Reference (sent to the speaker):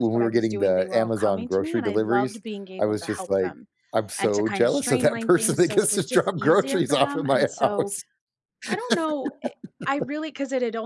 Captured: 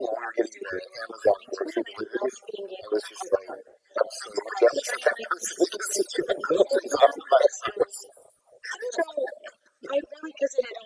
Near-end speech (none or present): none